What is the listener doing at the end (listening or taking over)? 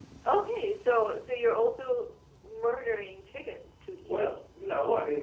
taking over